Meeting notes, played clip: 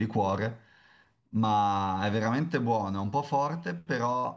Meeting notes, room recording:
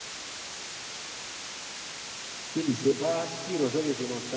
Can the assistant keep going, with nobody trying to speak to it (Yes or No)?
No